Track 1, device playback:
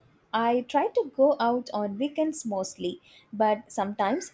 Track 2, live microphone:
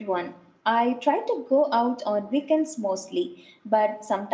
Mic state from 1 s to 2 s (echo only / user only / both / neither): echo only